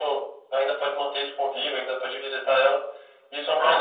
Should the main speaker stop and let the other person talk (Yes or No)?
No